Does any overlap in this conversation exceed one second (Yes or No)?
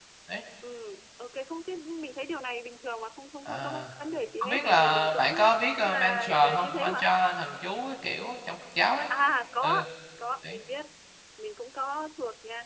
Yes